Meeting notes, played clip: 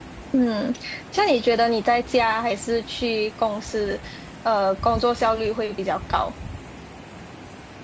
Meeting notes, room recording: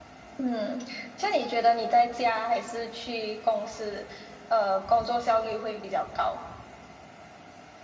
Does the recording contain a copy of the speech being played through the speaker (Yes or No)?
Yes